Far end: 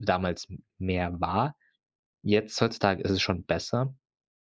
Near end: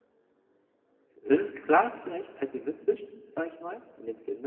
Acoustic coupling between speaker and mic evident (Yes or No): No